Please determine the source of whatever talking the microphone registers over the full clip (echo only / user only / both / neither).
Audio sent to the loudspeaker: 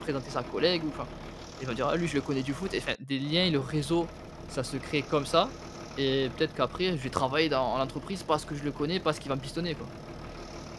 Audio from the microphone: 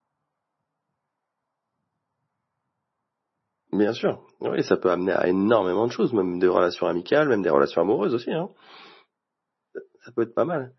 user only